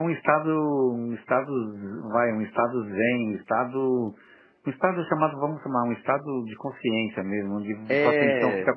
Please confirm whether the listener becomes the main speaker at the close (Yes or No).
No